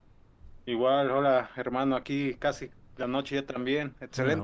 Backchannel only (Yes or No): No